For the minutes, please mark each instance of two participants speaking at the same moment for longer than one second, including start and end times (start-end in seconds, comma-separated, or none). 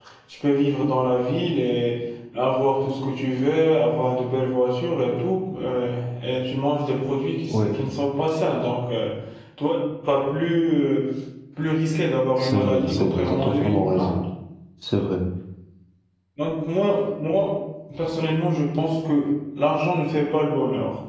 12.4-14.1